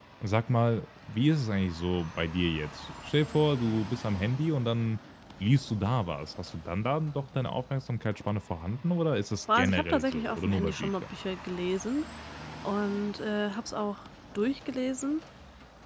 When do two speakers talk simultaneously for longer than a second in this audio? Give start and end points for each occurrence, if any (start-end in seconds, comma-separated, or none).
9.6-11.1